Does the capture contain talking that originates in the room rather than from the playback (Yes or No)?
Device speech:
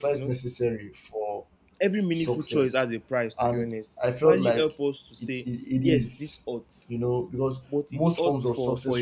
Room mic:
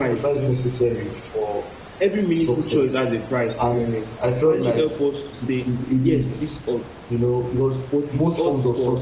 No